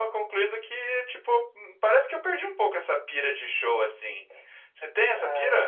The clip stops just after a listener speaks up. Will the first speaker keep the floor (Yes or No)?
No